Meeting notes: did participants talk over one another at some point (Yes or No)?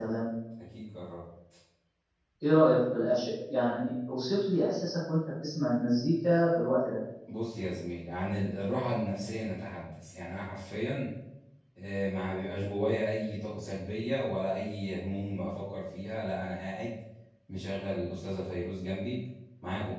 No